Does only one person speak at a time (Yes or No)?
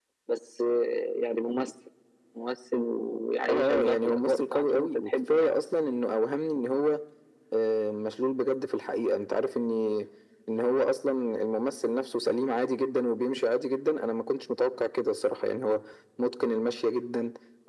No